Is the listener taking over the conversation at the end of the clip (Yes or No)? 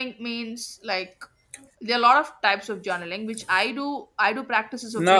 No